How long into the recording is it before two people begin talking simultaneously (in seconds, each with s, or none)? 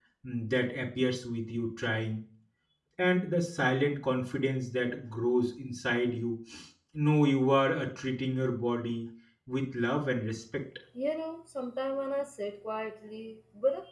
none